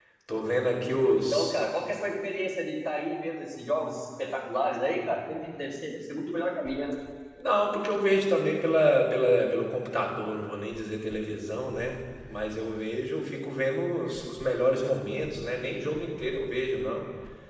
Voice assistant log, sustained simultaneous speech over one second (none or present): none